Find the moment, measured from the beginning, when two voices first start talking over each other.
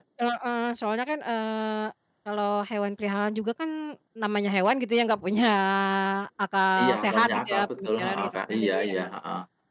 6.8 s

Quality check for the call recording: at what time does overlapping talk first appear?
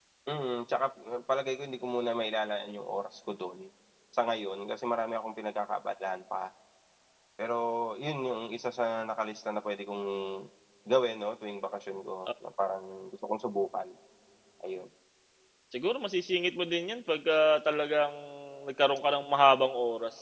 none

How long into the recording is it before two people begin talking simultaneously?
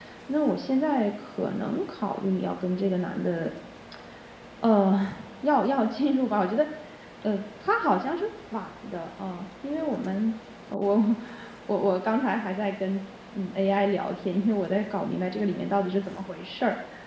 none

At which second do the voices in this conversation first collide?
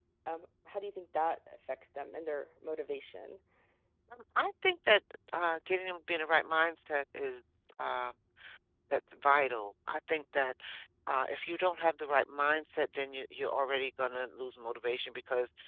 none

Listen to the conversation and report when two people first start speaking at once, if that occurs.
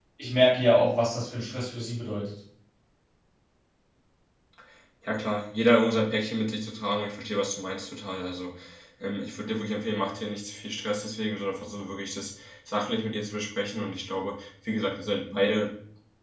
none

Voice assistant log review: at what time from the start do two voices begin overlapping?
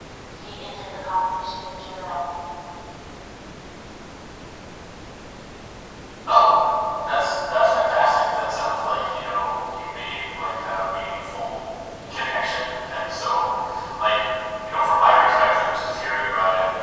none

